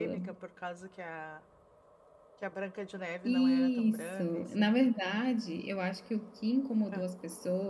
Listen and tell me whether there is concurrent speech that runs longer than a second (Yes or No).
Yes